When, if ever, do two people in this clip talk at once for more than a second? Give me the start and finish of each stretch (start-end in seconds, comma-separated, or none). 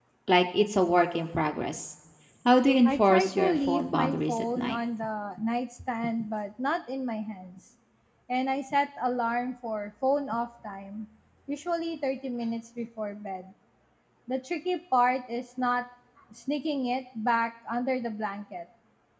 2.9-4.8